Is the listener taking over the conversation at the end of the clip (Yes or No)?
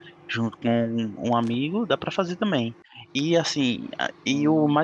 No